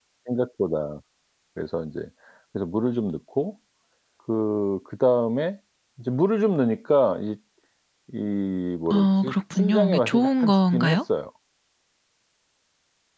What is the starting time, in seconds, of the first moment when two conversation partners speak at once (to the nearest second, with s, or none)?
9 s